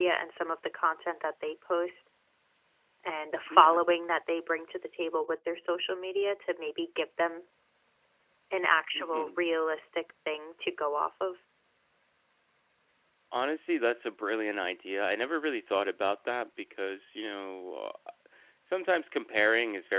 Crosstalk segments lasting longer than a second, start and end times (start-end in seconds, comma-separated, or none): none